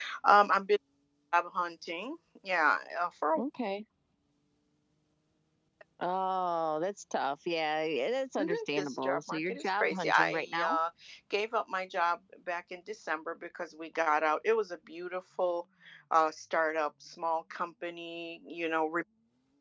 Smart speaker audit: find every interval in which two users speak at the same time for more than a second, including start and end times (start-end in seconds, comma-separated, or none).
8.4-10.8